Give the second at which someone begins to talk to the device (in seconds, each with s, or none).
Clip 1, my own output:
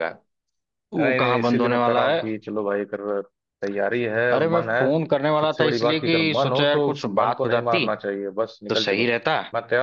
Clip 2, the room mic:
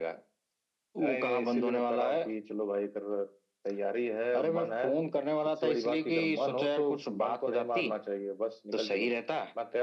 none